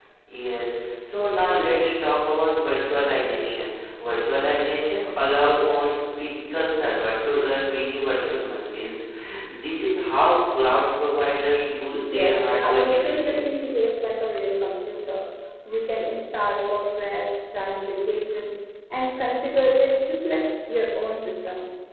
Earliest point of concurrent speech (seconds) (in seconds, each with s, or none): 11.9 s